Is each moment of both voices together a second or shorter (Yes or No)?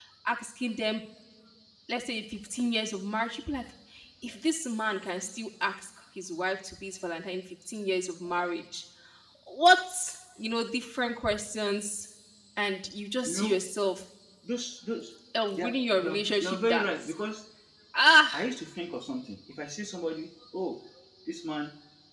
No